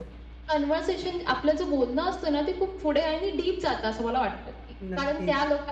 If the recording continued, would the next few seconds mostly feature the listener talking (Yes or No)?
No